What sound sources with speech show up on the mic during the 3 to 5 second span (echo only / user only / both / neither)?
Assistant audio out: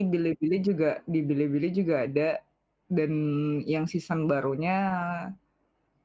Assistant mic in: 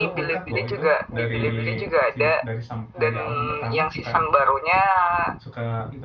both